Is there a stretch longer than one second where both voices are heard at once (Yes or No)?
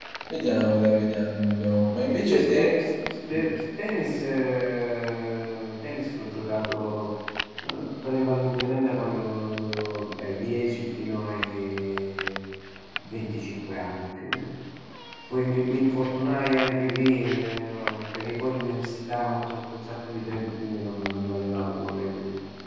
No